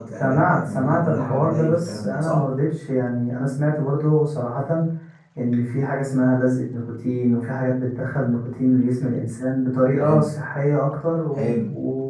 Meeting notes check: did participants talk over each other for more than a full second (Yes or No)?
Yes